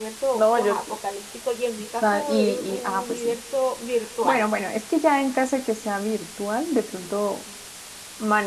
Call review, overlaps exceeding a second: present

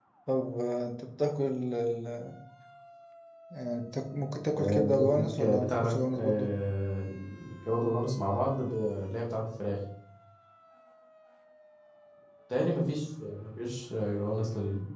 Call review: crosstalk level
present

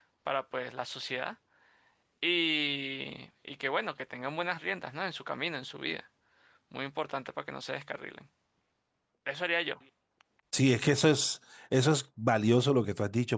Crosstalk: none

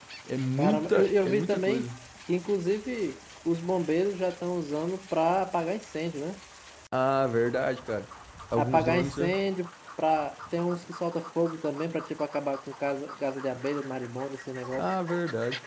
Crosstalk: present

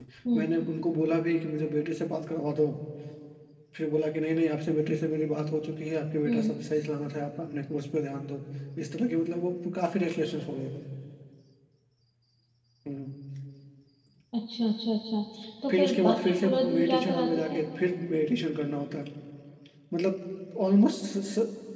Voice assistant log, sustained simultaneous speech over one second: present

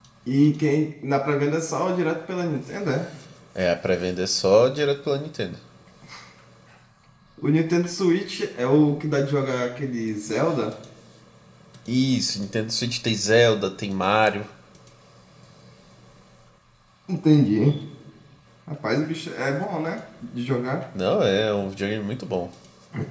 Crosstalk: none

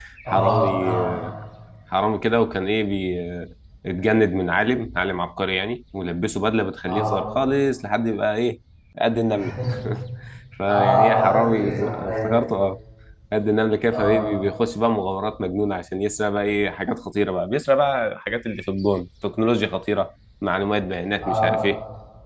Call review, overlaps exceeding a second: present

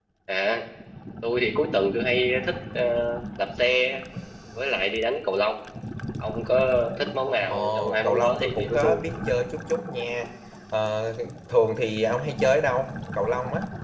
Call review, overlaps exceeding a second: present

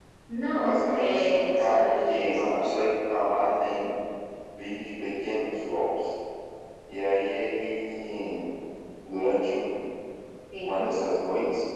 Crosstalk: present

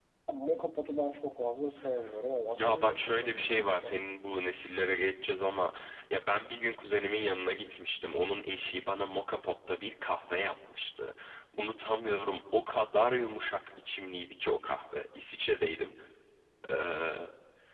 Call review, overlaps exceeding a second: present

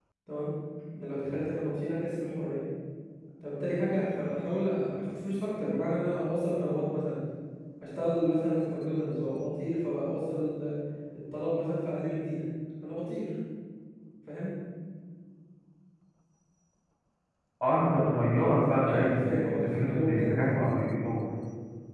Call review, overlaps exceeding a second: present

